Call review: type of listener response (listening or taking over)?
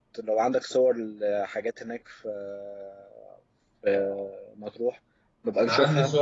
taking over